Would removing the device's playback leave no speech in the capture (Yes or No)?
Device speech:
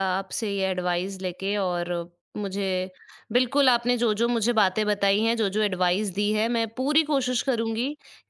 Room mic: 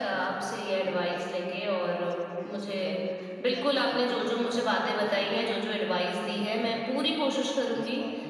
No